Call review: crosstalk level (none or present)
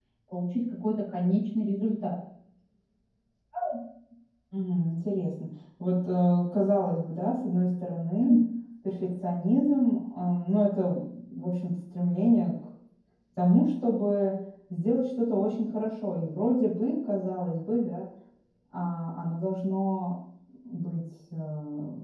none